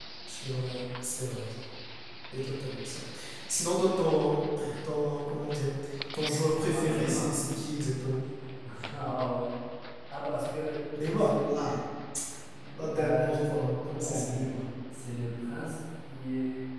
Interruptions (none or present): present